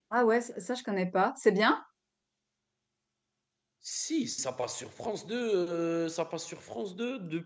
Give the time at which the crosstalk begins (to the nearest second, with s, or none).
none